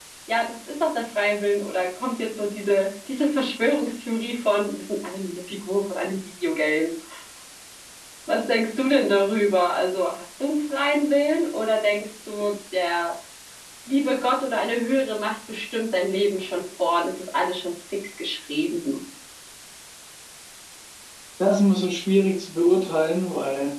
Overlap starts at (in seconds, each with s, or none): none